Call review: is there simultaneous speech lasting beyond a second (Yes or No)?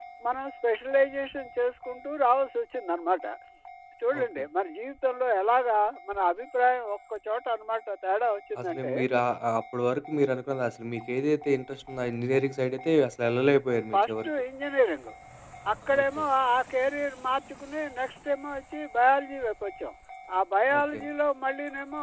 No